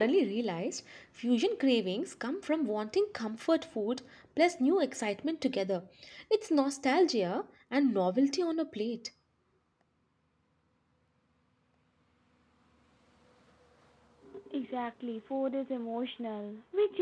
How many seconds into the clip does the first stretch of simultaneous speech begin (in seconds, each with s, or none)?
none